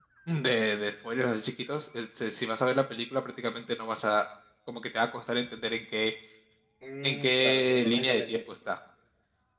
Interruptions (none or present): present